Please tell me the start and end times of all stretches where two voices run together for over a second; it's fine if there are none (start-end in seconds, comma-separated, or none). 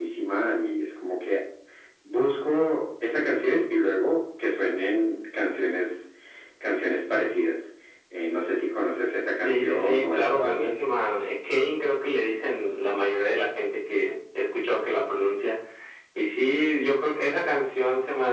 9.4-10.7